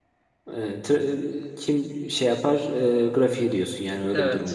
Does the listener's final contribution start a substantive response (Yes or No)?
Yes